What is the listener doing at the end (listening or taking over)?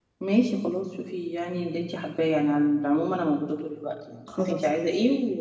listening